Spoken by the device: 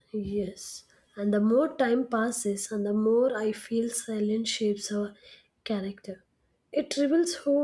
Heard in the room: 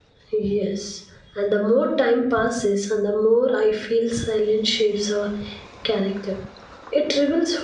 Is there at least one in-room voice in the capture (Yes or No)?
No